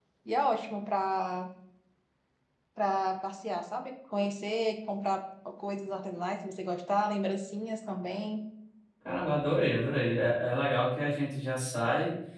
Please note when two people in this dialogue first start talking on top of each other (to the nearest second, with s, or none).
none